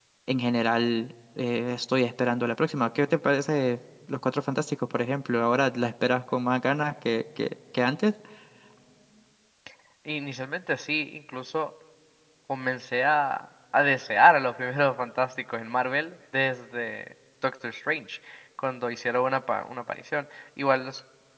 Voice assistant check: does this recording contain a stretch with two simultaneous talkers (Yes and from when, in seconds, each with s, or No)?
No